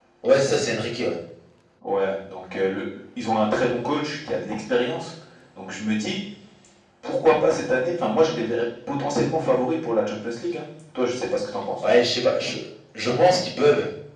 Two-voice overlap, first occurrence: none

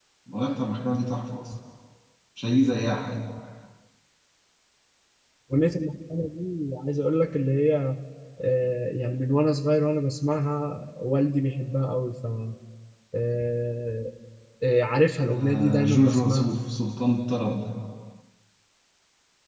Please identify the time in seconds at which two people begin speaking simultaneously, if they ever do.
15.2 s

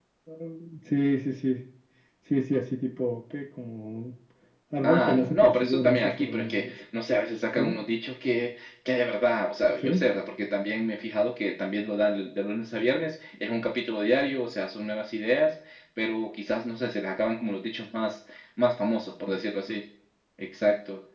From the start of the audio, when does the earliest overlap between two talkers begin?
4.9 s

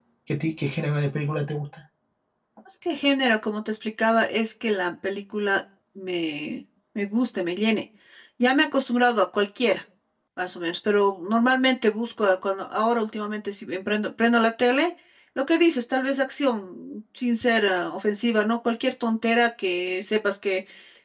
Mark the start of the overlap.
none

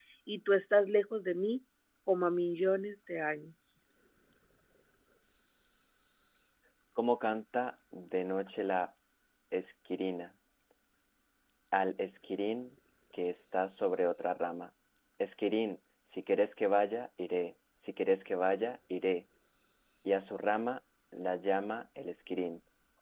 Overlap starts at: none

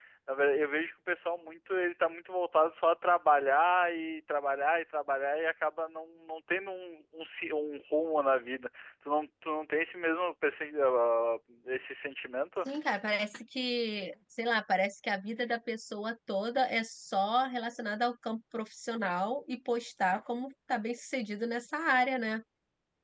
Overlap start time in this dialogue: none

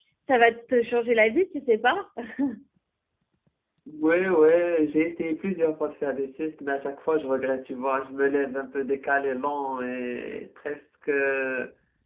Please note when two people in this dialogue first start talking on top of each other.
none

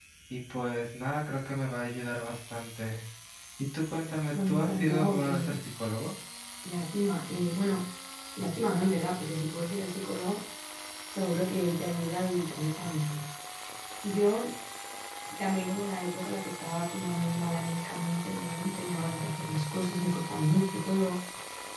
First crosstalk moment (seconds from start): 4.3 s

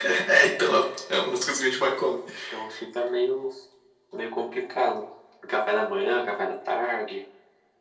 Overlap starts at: none

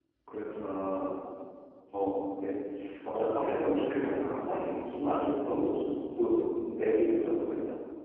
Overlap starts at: 3.1 s

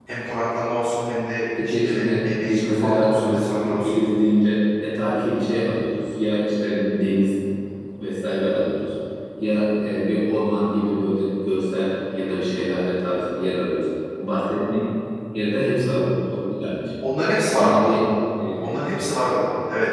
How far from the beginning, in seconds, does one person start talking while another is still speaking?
1.6 s

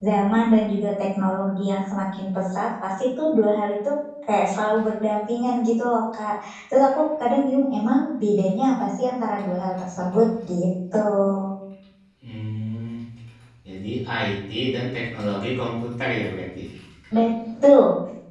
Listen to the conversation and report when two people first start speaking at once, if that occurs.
none

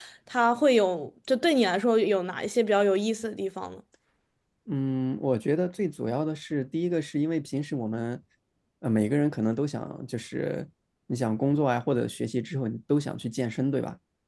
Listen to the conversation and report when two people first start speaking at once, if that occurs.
none

